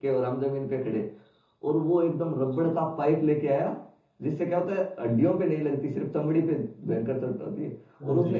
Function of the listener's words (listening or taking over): listening